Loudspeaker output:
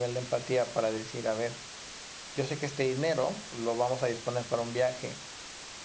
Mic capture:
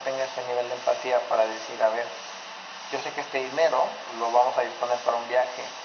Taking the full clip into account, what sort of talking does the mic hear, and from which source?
echo only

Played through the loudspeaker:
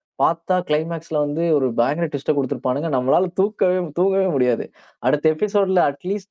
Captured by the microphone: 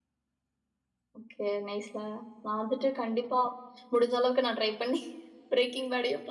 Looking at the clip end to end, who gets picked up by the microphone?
user only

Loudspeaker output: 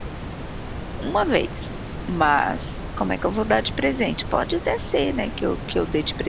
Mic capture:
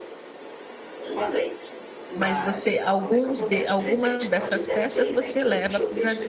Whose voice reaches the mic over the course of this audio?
both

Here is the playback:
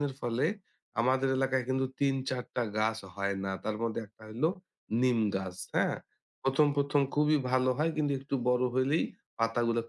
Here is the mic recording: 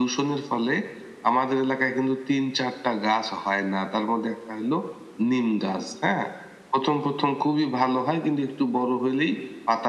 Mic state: echo only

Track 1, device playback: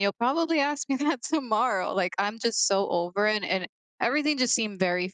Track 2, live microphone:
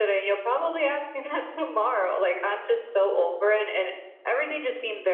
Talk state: echo only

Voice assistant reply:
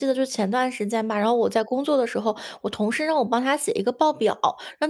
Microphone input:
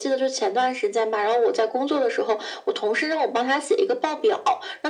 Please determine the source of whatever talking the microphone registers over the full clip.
echo only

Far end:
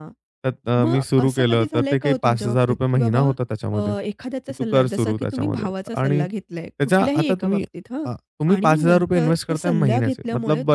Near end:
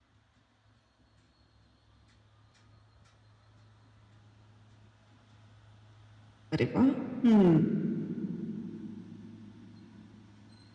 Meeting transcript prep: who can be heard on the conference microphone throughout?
user only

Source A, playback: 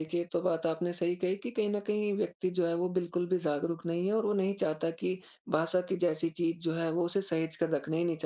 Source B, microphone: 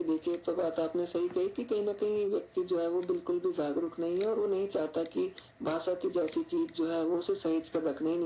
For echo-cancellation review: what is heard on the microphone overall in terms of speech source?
echo only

